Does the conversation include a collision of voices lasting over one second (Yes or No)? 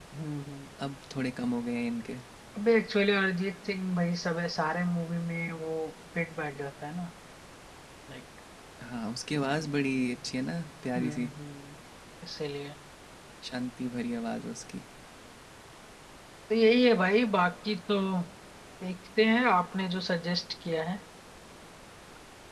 No